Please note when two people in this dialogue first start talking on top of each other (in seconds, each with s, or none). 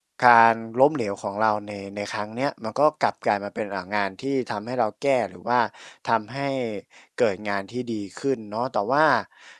none